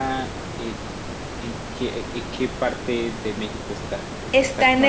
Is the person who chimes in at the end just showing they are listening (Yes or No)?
No